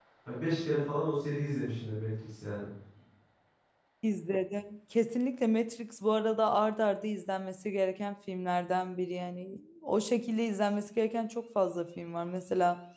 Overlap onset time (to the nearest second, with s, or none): none